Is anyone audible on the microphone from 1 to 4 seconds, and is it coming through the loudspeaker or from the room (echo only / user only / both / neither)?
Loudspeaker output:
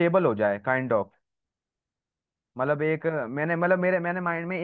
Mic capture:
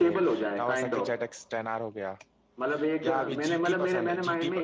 both